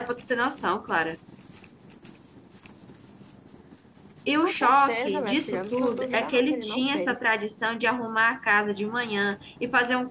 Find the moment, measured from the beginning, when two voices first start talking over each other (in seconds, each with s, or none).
4.4 s